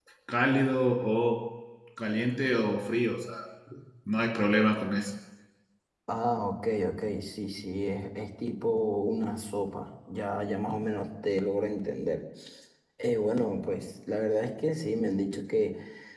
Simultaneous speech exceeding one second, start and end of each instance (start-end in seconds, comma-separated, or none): none